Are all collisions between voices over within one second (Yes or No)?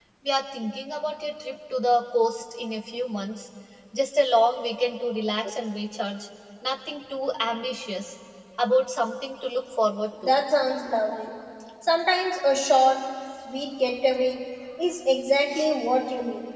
Yes